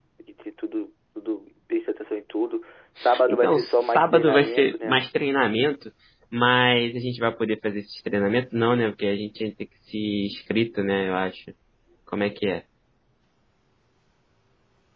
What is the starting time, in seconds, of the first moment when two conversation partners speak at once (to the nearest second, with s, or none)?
3 s